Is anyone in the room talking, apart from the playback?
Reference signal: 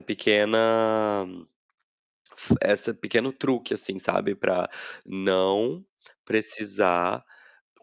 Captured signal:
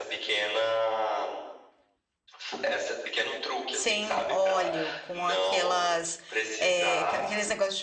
Yes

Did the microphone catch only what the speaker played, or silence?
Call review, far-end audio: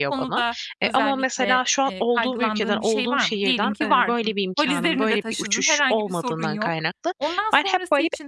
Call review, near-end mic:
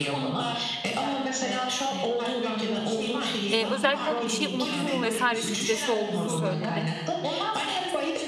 No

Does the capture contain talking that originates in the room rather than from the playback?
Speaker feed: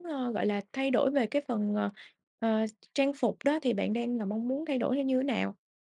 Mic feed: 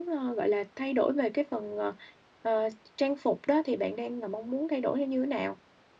No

